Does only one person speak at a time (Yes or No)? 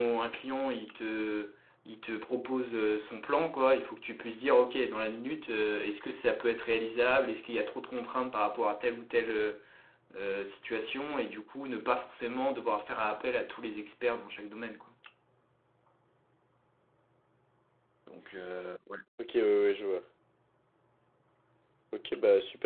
Yes